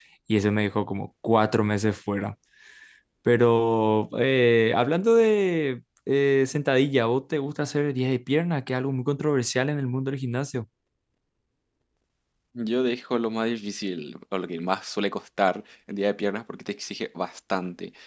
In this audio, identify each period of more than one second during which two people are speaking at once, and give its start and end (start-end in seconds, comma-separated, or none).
none